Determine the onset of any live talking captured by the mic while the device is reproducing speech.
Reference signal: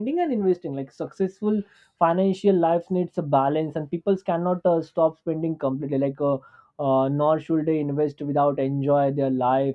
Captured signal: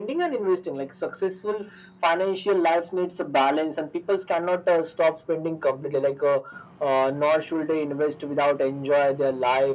none

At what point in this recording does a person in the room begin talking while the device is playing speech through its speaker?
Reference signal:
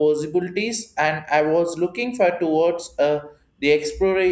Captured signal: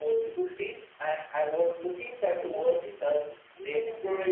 2.3 s

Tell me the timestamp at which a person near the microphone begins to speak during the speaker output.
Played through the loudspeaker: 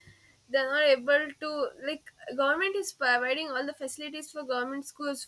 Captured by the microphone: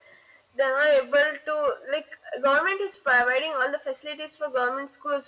none

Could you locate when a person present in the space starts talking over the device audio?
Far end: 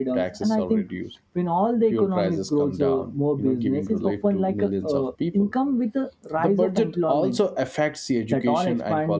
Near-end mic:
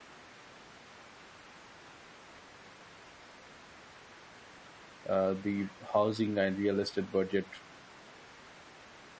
5.1 s

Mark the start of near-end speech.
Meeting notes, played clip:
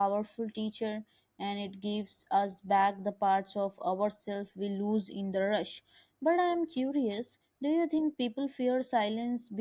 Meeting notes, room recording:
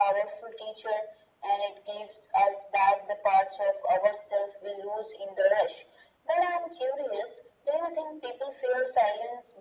none

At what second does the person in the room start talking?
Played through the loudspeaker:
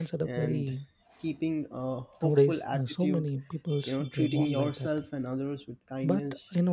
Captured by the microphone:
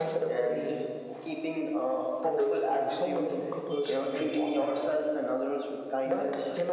none

